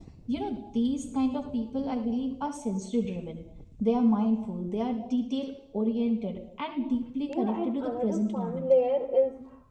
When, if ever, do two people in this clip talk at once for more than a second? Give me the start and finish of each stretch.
7.3-8.7

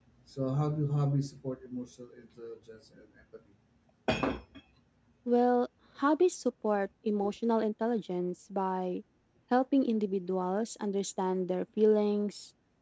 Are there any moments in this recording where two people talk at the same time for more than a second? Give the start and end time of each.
none

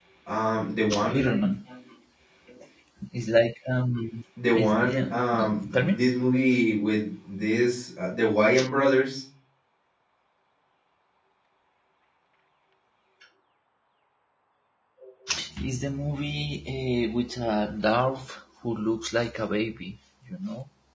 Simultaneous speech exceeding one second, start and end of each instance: 4.5-6.0

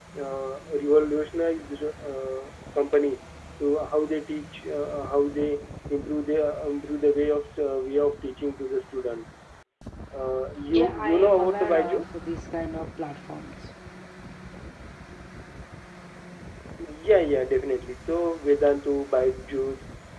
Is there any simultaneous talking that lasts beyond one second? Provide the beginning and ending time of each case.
10.7-12.0

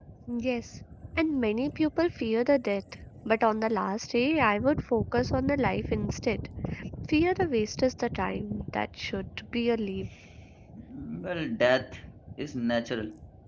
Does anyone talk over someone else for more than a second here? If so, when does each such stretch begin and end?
none

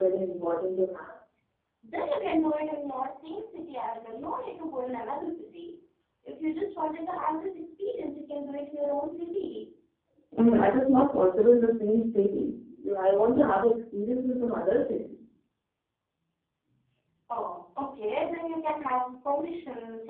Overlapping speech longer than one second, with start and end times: none

